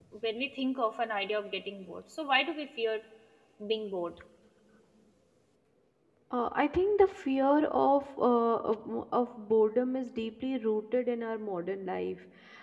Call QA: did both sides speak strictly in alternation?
Yes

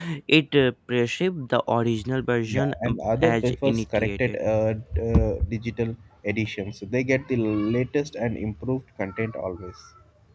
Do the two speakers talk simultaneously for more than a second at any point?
Yes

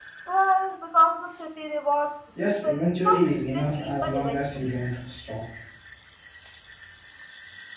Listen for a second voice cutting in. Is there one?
Yes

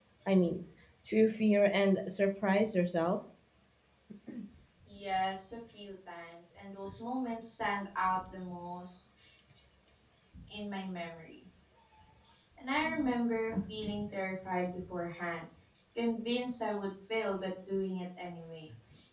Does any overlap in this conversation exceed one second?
No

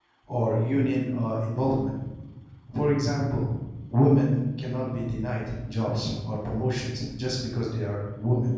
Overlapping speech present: No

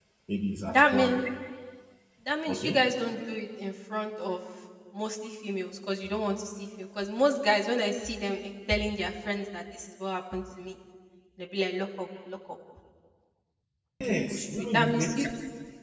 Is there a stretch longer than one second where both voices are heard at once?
Yes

